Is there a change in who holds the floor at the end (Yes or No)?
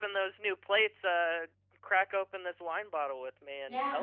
Yes